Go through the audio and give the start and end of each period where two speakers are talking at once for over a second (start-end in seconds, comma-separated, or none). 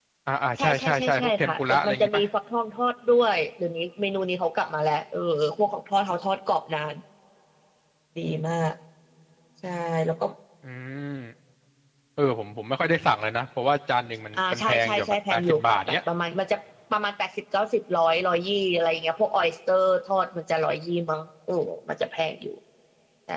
0.6-2.2, 14.3-16.0